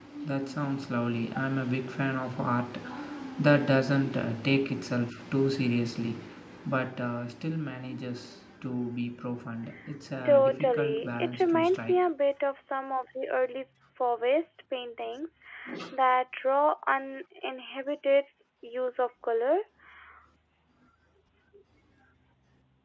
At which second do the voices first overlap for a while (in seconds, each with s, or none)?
10.2 s